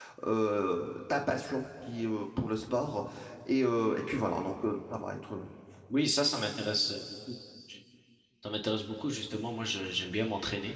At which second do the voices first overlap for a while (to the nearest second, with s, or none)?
none